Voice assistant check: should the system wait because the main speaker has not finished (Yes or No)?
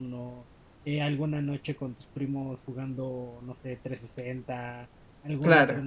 Yes